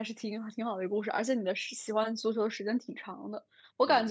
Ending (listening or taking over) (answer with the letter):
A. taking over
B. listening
B